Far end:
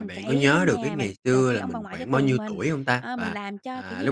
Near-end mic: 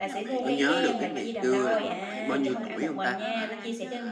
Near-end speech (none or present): present